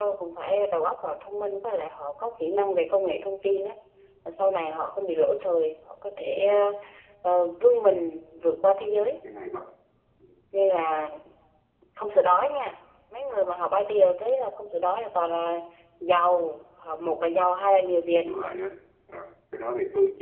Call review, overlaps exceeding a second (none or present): none